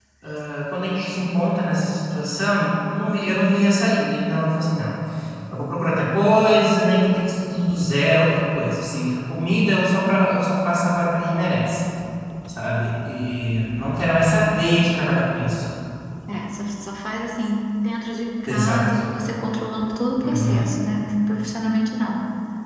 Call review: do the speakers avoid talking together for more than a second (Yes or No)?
Yes